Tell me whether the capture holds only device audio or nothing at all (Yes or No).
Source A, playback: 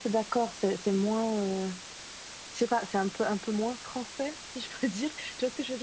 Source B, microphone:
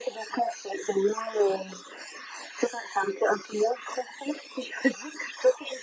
Yes